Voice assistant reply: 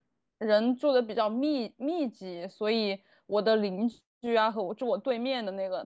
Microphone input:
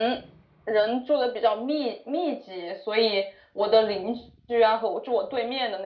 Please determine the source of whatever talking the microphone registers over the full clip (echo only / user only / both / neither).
echo only